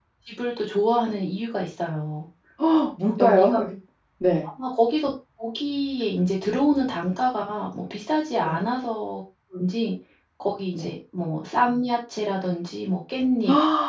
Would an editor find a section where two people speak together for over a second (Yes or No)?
No